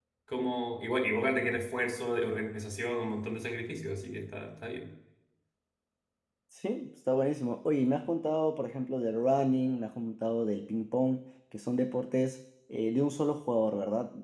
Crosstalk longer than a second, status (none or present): none